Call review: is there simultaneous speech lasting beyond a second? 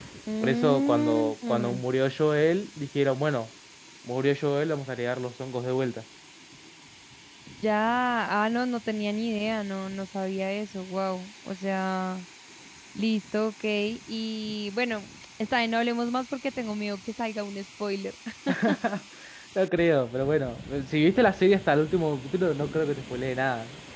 Yes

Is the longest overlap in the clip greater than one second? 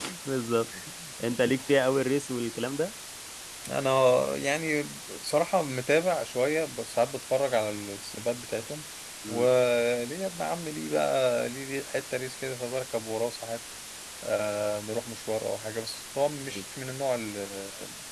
No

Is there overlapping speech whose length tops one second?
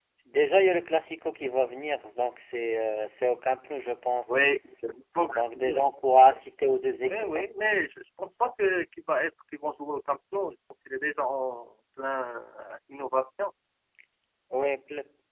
No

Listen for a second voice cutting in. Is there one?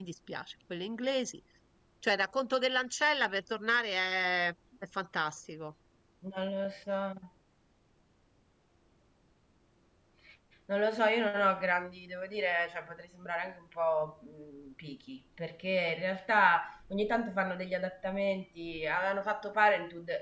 No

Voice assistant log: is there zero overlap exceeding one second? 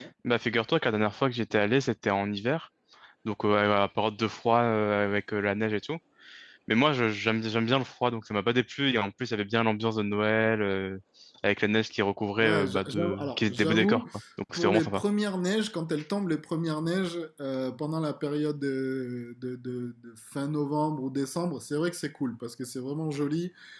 No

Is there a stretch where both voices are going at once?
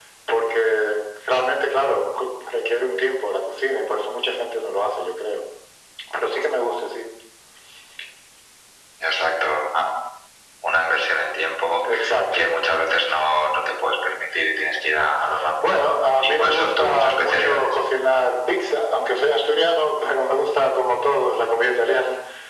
Yes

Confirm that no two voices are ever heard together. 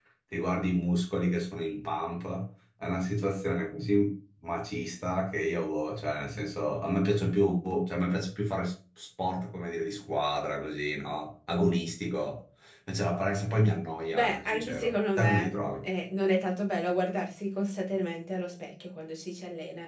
No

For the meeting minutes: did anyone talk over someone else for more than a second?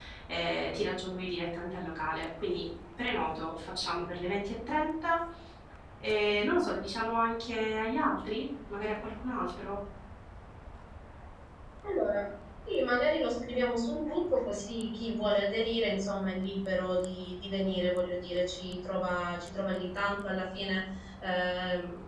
No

